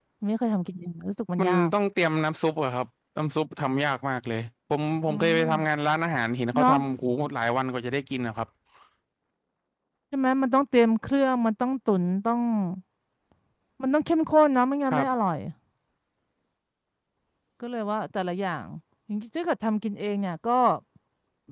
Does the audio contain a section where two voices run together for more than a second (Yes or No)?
No